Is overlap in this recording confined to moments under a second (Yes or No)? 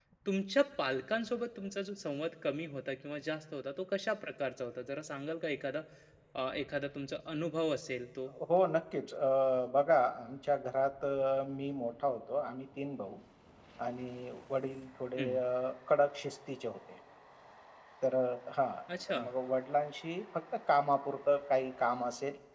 Yes